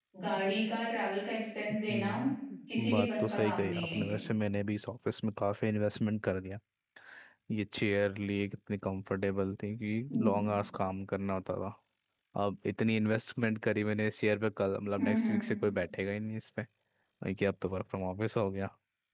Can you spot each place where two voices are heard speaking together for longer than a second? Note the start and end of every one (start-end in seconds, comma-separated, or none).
2.8-4.2